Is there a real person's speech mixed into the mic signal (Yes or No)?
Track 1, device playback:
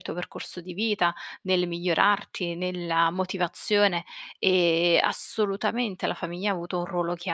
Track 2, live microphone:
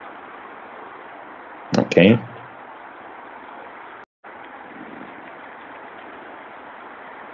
Yes